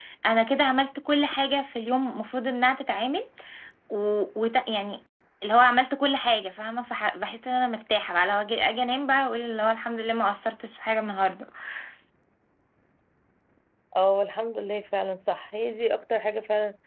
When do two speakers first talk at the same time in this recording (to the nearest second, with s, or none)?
none